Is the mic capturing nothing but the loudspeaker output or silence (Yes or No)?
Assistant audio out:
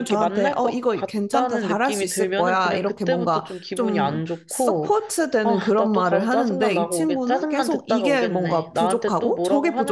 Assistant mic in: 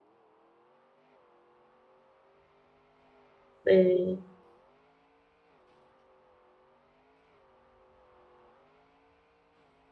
No